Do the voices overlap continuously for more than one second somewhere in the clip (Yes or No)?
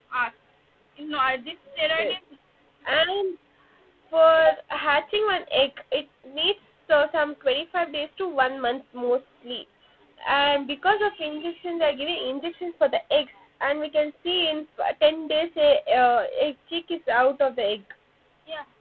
No